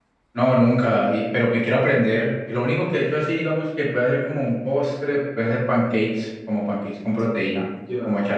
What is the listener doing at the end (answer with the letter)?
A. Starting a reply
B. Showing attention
A